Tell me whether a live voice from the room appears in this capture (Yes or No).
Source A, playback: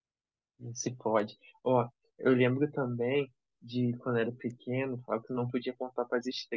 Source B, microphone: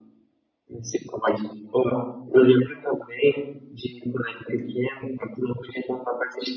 No